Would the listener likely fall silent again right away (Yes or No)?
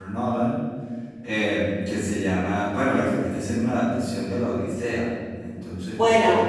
No